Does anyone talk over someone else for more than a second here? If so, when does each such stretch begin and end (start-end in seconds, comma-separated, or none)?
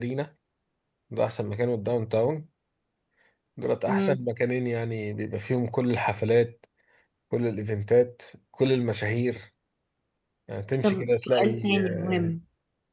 10.8-12.4